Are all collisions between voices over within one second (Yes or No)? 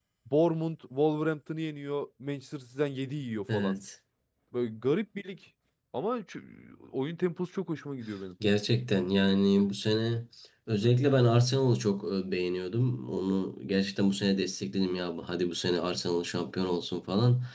Yes